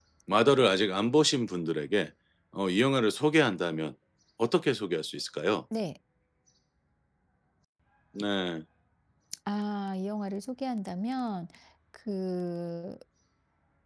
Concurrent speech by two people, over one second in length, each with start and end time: none

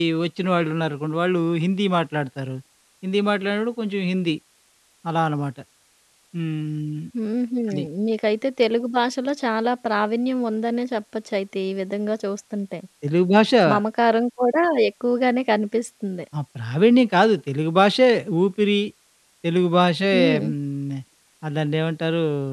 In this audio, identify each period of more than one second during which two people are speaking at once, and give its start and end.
none

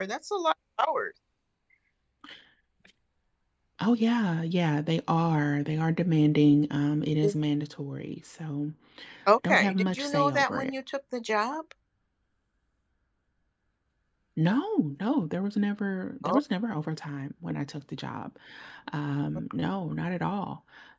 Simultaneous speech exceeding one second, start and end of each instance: 9.4-10.7

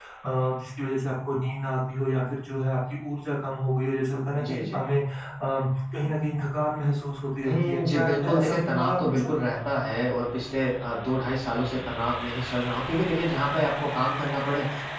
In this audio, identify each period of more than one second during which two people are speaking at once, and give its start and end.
7.4-9.3

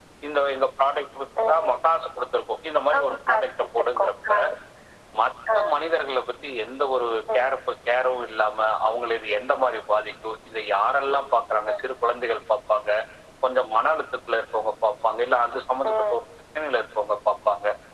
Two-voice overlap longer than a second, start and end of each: 3.0-4.3

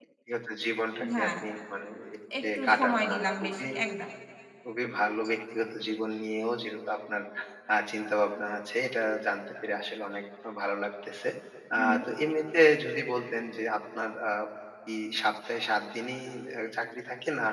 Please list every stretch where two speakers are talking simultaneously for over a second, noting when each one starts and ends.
2.4-3.7

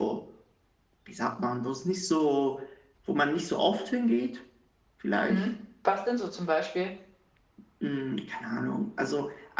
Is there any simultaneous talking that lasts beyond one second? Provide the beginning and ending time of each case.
none

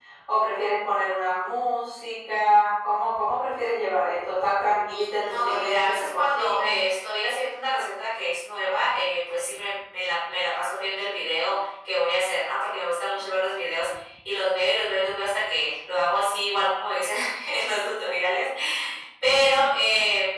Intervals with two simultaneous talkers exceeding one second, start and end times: 5.3-6.8

